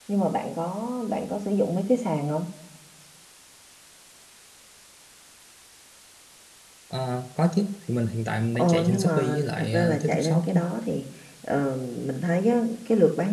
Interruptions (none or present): present